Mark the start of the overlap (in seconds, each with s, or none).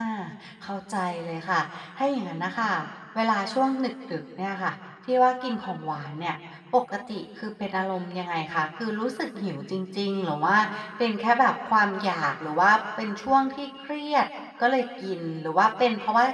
none